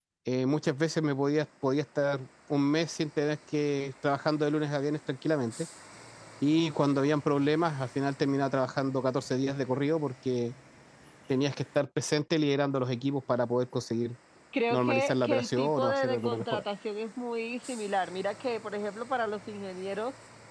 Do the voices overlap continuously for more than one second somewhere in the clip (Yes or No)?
Yes